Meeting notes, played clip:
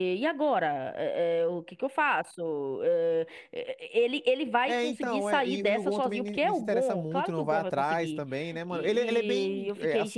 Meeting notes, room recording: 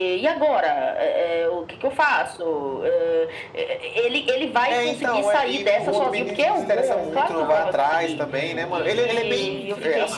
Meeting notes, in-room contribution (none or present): present